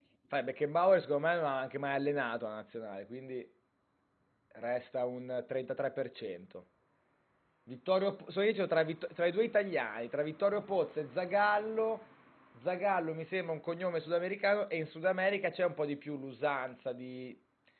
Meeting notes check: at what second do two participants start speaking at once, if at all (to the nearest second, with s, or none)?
none